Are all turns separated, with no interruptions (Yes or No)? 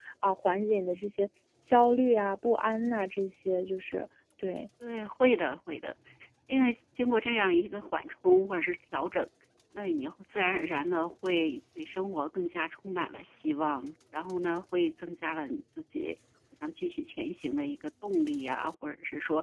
Yes